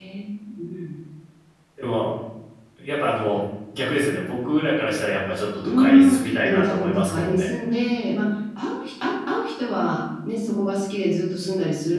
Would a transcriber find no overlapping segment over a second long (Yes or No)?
No